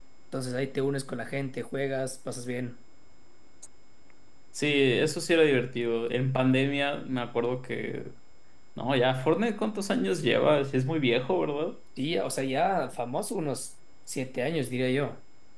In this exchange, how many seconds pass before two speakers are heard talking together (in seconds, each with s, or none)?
none